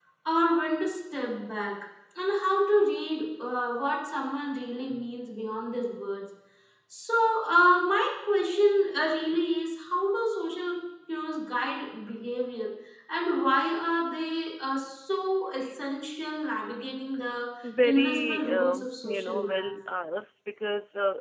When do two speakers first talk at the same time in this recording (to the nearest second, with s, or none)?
18 s